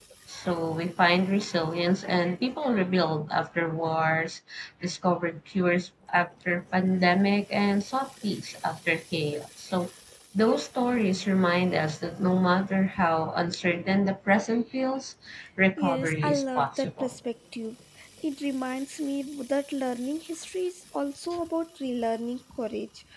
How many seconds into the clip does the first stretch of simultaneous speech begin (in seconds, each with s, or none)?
15.8 s